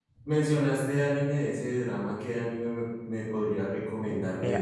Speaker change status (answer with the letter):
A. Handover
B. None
A